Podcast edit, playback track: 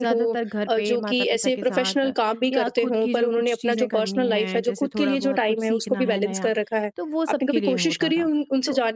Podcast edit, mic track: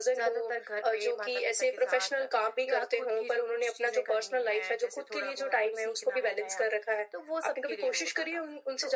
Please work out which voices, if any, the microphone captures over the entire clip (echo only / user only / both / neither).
echo only